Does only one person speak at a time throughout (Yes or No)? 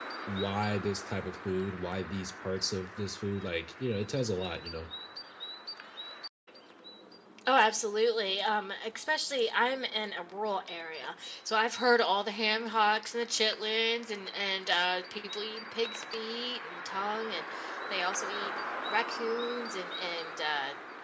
Yes